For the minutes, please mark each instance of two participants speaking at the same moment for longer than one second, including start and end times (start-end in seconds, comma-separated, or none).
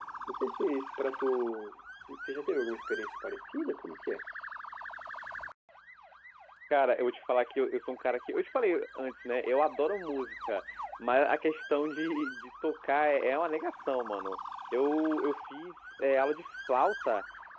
none